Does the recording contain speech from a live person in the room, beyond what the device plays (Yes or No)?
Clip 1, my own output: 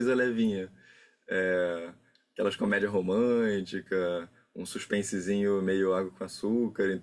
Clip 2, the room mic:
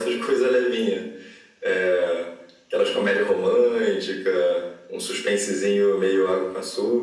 No